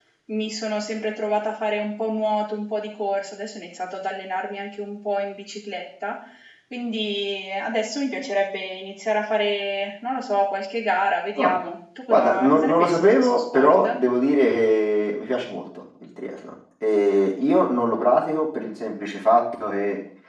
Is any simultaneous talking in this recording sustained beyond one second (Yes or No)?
Yes